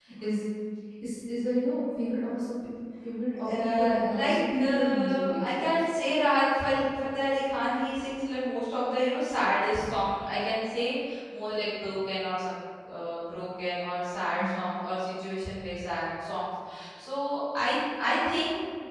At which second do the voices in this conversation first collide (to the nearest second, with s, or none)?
3 s